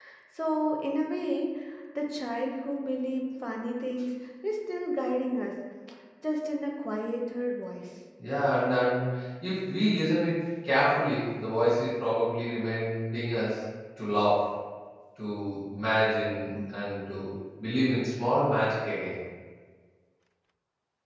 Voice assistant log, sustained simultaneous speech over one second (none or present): none